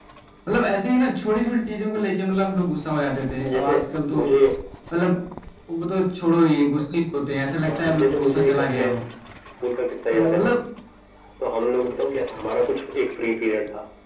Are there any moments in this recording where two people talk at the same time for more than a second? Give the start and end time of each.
7.6-8.9

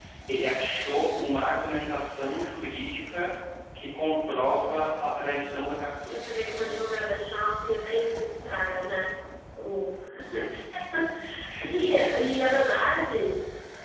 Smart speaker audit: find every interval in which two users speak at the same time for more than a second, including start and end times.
none

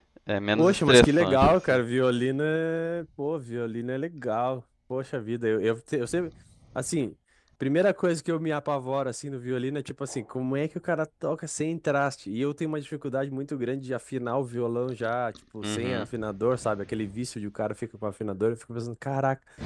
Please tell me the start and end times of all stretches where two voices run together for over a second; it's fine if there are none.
0.5-1.8

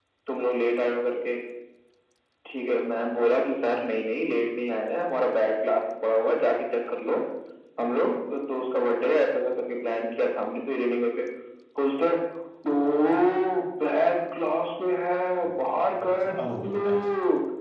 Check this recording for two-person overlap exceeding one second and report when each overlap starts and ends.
15.4-17.0

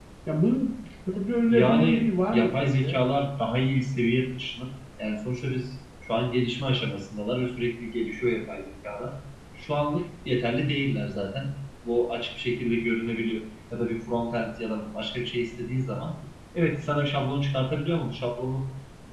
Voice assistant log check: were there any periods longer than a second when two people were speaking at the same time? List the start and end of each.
1.5-3.0

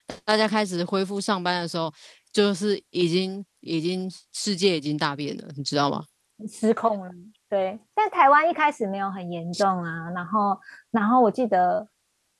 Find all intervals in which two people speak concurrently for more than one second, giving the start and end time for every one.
none

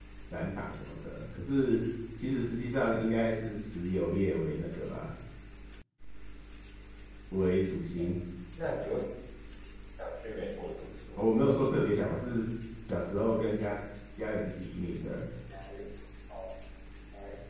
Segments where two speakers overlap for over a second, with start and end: none

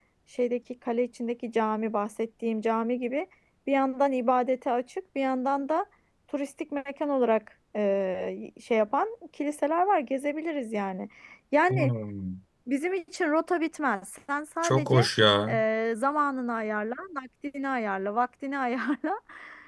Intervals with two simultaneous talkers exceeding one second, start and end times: none

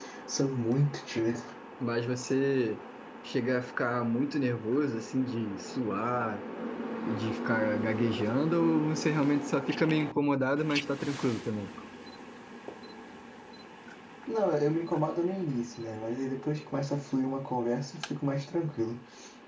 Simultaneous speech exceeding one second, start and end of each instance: none

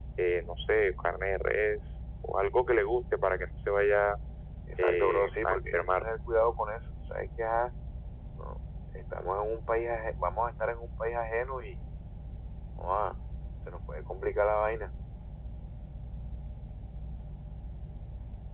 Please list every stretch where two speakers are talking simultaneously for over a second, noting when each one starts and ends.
4.8-6.1

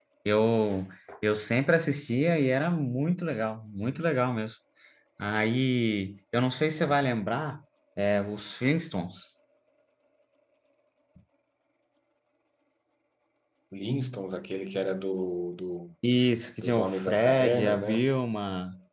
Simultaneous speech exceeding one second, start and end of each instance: 16.6-18.1

